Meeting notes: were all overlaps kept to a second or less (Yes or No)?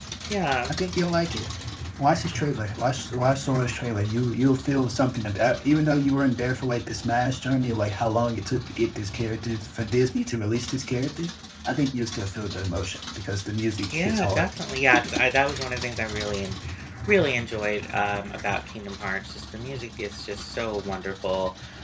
Yes